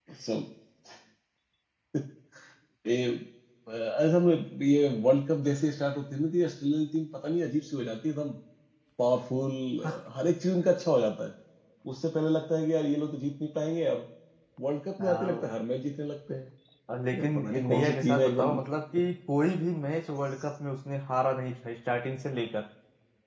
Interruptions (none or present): present